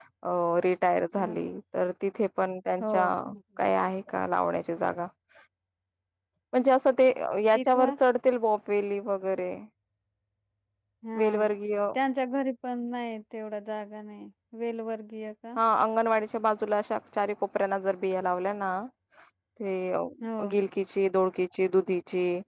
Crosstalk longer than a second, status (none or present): none